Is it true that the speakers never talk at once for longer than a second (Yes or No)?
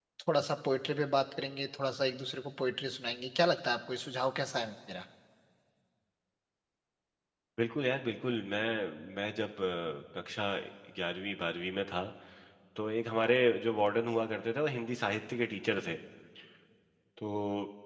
Yes